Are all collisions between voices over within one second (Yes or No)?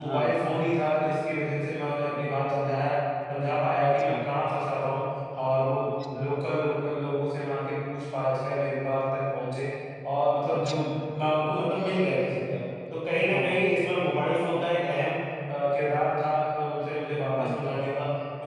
Yes